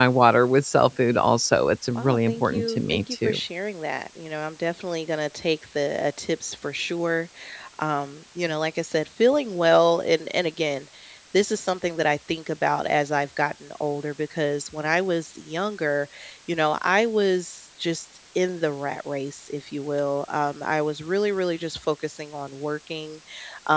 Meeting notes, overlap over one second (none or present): present